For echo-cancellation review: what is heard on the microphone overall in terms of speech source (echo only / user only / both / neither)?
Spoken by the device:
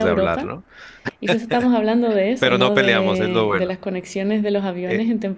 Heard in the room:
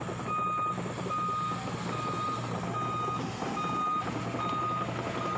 neither